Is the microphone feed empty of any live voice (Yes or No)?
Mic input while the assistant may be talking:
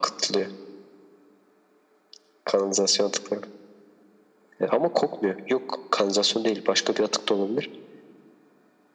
Yes